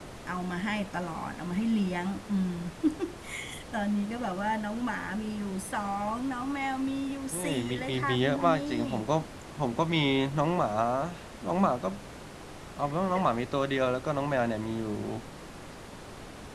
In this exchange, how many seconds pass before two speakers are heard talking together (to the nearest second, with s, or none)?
7 s